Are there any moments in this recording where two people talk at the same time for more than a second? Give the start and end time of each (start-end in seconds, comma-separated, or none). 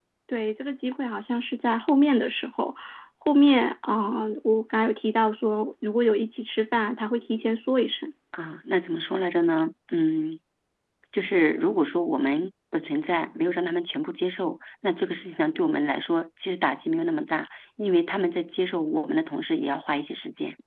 none